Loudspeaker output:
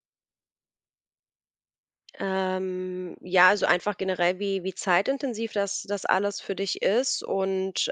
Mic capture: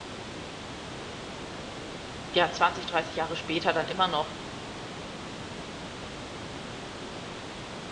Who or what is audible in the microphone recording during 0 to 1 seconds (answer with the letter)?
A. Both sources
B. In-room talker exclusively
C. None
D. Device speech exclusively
C